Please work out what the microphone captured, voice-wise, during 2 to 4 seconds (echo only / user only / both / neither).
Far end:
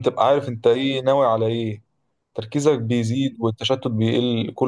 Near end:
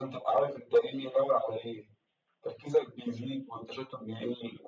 echo only